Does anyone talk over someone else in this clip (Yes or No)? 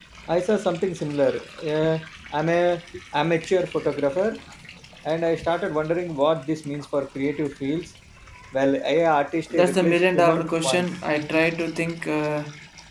Yes